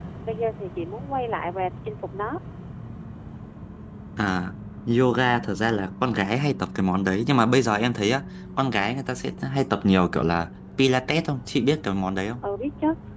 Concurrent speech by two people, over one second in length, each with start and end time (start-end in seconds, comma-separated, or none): none